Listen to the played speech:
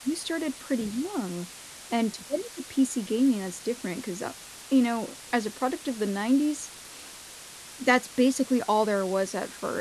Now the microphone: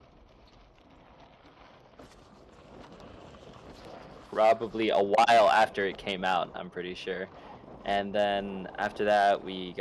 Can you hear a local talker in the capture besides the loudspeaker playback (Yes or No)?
Yes